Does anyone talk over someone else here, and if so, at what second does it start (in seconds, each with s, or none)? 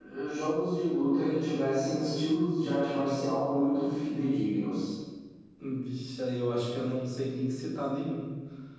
none